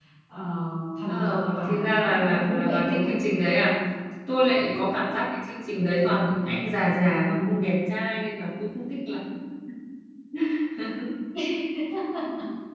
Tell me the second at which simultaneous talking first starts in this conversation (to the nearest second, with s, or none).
1 s